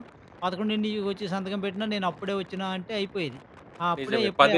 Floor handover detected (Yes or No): Yes